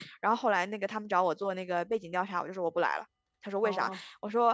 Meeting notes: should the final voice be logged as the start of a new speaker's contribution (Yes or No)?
No